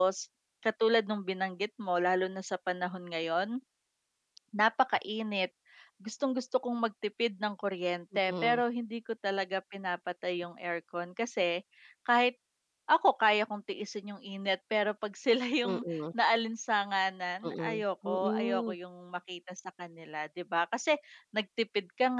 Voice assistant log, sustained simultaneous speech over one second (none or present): present